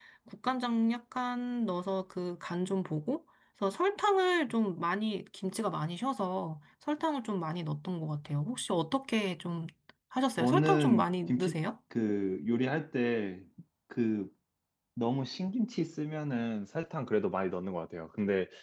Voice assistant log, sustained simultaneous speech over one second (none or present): present